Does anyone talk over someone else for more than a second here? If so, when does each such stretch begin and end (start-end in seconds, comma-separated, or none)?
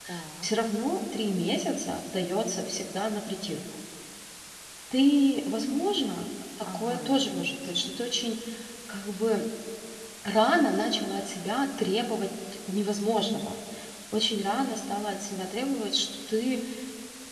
6.6-7.9